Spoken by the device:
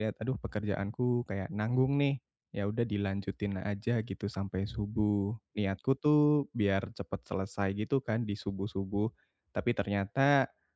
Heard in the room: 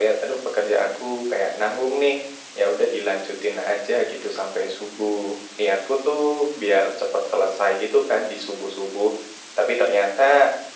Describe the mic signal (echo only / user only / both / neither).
echo only